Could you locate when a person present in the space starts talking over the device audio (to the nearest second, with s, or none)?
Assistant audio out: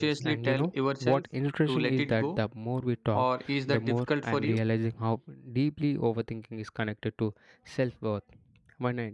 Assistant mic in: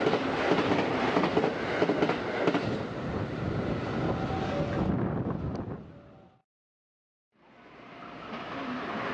none